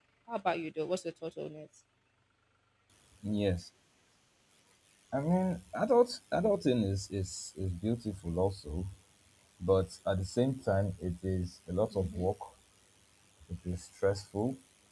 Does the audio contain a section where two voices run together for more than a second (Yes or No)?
No